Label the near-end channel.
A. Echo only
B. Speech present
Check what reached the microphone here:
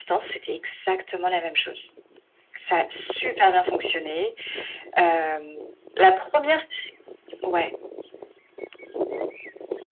A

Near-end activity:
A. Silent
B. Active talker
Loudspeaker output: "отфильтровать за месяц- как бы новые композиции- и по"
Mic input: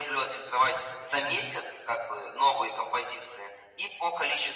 B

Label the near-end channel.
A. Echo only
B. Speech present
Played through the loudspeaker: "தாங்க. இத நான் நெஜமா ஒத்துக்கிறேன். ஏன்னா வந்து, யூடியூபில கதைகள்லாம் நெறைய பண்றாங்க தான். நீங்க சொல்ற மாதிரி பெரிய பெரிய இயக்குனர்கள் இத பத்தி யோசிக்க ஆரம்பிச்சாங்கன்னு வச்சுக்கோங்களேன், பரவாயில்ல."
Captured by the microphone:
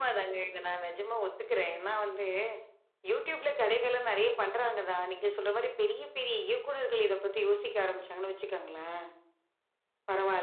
A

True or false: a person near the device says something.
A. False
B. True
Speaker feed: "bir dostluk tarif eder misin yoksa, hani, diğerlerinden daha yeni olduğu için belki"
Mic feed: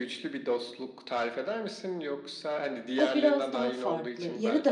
B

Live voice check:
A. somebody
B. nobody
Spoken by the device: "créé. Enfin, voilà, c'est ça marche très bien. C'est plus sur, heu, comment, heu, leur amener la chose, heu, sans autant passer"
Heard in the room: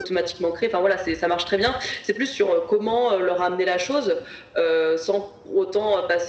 B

